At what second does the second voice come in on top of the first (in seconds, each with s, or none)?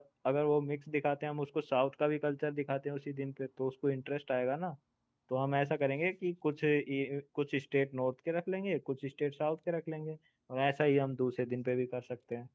none